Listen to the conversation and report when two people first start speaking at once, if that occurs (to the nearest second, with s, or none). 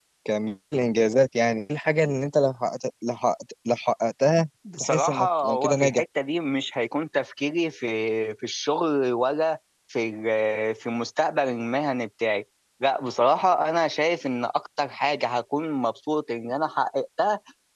5 s